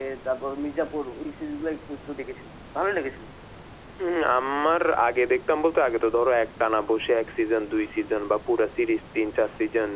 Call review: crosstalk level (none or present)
none